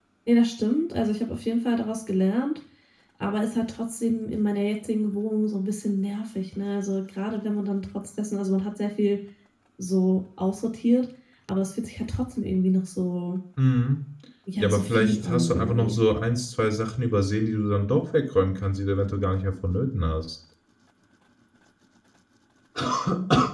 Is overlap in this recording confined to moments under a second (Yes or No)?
No